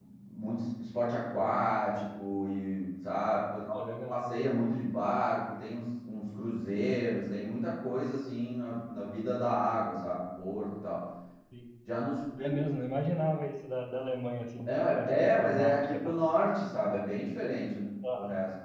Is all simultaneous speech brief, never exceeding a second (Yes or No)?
No